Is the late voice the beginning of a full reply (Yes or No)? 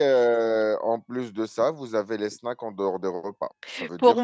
Yes